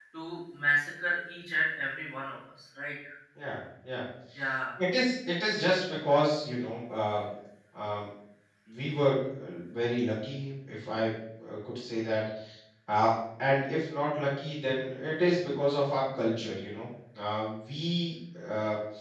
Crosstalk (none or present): none